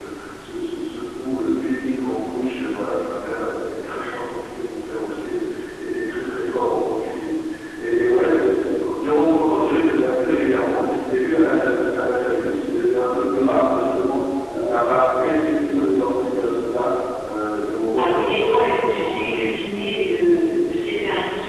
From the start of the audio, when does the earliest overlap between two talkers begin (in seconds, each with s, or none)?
18.0 s